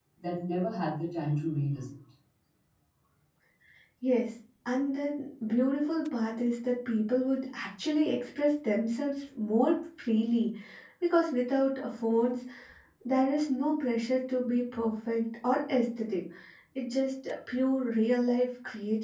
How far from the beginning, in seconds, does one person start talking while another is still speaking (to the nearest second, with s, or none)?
none